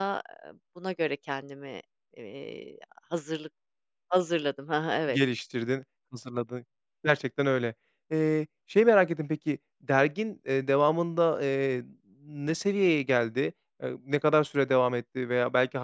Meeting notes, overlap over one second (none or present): none